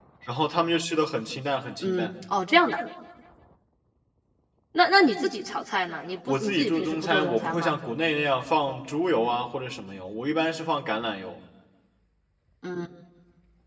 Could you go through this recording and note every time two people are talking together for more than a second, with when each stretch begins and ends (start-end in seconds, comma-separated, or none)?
6.3-7.7